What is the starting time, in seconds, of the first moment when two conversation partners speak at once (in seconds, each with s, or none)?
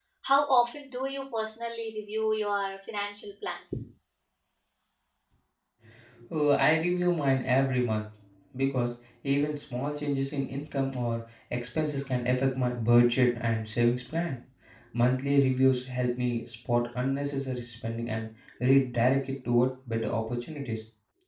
none